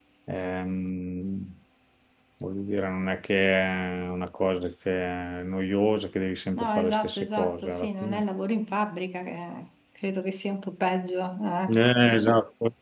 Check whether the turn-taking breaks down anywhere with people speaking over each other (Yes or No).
Yes